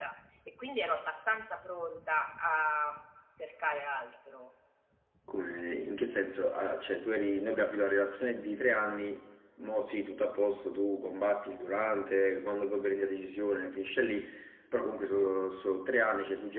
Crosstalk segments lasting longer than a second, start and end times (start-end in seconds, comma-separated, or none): none